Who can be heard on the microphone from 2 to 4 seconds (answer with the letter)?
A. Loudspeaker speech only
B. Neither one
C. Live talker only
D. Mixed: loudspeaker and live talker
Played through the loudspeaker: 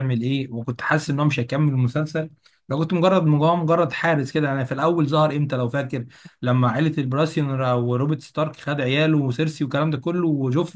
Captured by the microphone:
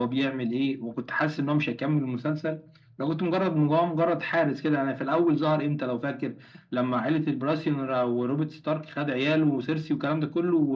A